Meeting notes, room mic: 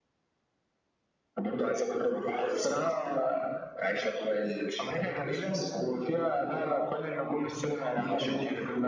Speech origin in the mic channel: echo only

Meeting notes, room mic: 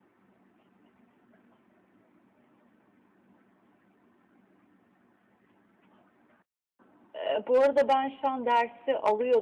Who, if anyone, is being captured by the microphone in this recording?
user only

